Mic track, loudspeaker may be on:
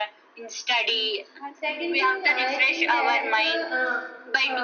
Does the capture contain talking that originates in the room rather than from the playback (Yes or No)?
Yes